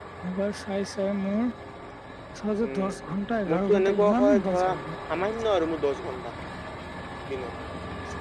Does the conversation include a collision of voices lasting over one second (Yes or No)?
Yes